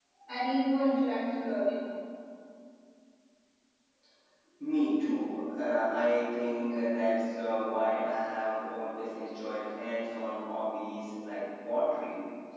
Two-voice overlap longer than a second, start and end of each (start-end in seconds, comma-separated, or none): none